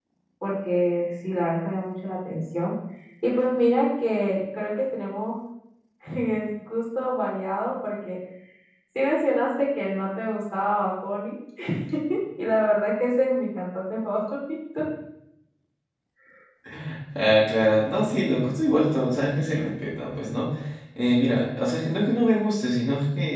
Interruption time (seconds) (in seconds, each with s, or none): none